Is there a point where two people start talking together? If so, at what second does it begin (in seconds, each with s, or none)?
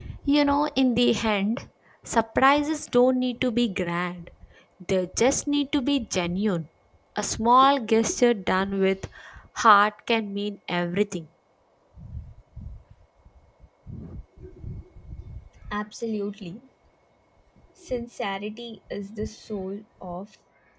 none